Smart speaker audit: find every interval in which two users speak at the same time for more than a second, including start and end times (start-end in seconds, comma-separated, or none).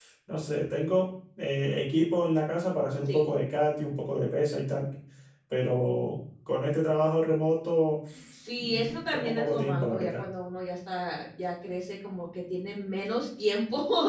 8.6-10.2